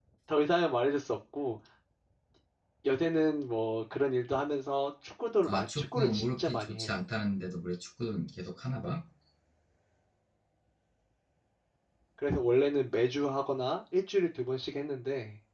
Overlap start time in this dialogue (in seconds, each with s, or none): 5.5 s